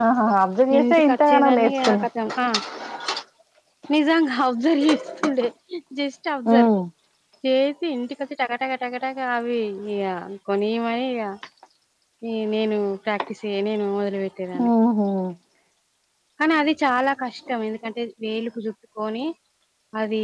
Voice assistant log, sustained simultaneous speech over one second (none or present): present